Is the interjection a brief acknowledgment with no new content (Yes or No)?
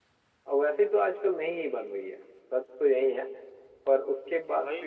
No